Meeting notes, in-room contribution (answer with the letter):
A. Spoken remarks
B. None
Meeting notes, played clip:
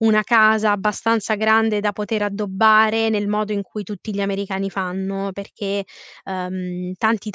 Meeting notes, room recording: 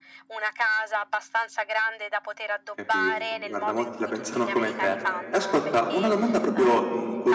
A